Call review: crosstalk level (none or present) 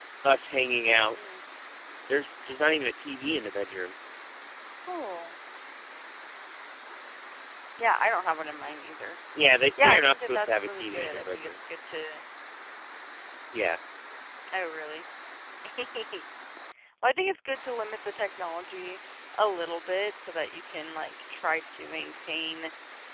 present